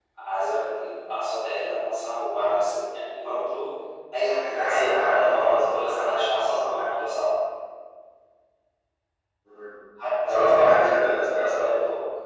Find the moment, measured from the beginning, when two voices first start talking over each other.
4.5 s

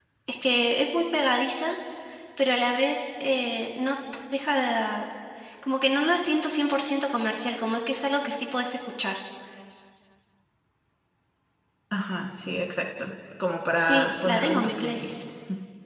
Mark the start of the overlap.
13.7 s

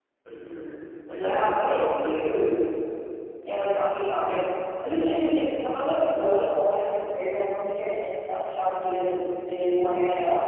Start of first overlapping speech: 1.1 s

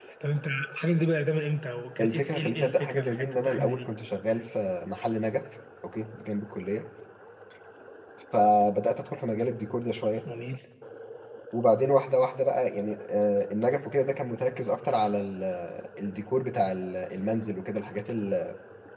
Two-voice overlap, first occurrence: 2.0 s

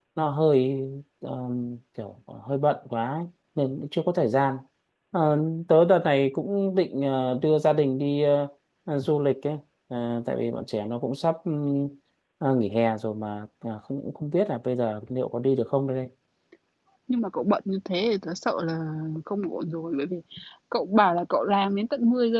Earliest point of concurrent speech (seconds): none

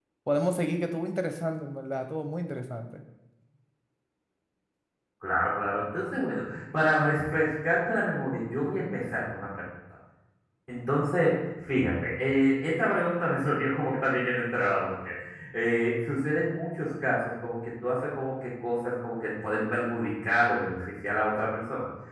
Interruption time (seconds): none

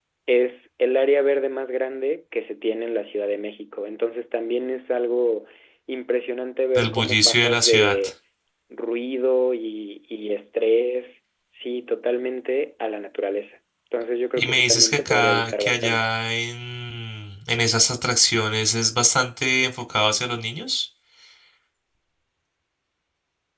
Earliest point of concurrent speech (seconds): 6.8 s

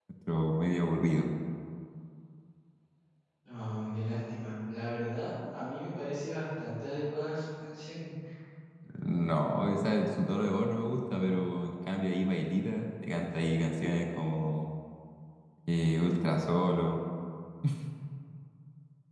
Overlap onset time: none

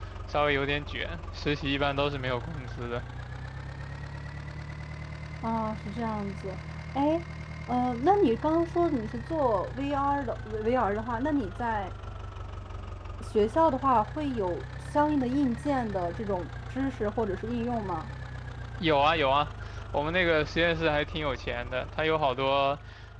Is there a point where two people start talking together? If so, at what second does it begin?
none

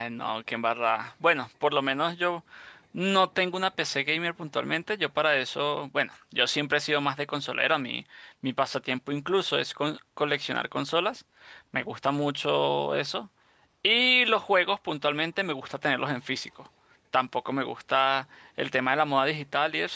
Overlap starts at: none

